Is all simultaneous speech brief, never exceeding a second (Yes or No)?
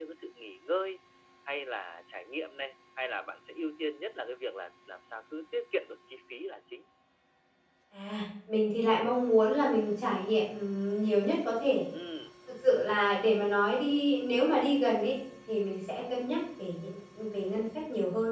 Yes